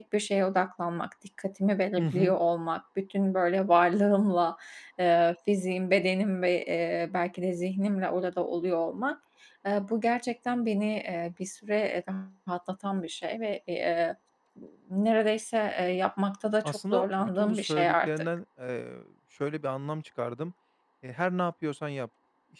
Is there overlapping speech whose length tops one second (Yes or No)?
Yes